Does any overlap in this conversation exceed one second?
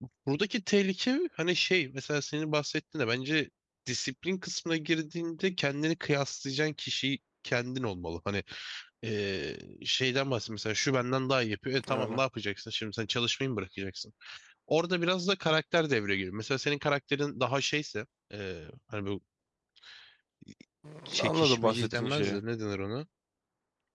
Yes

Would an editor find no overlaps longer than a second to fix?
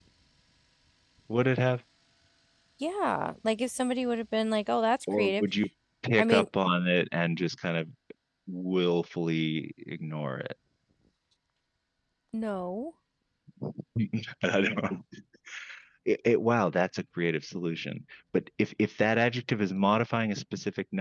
Yes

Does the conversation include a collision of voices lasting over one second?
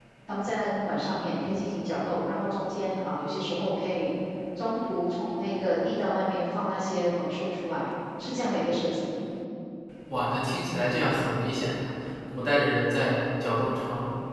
No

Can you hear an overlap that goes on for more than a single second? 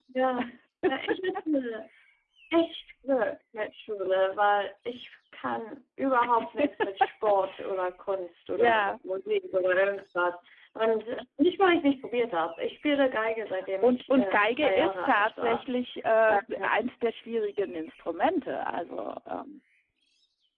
Yes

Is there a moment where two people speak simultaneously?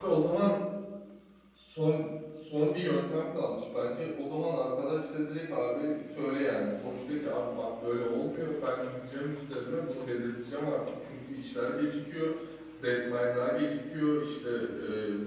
No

